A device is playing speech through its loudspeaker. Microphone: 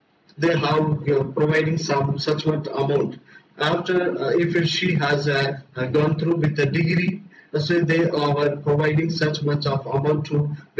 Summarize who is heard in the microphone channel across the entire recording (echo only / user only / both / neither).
echo only